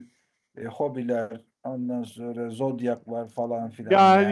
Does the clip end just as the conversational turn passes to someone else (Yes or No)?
Yes